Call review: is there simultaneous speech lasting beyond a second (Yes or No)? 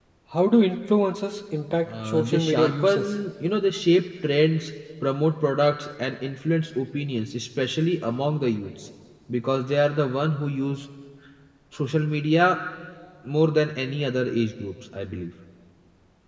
Yes